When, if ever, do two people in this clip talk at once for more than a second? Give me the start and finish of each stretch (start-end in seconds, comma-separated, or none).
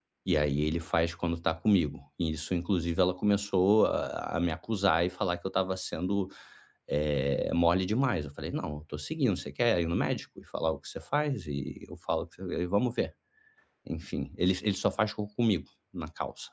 none